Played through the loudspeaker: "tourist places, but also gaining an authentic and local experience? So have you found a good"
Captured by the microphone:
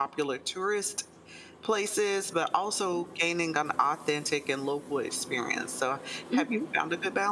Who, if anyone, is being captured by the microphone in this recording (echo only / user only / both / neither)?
both